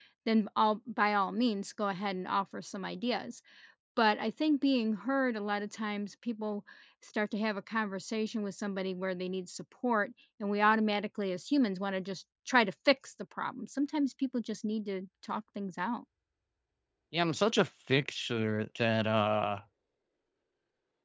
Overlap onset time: none

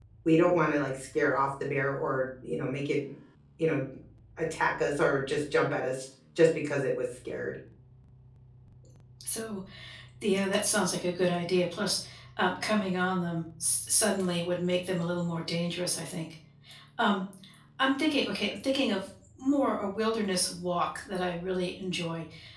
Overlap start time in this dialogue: none

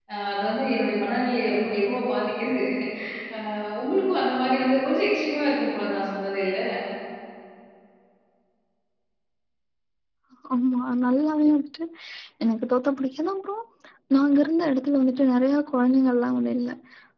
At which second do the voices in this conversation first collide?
none

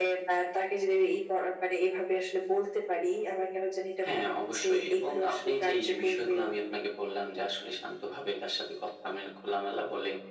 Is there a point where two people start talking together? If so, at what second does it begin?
4.0 s

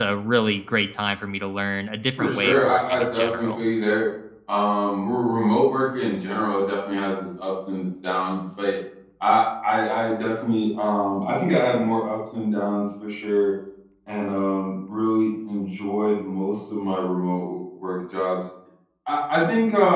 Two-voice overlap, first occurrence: 2.2 s

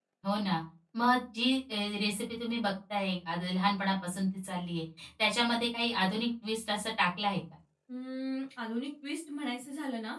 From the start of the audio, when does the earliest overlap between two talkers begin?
none

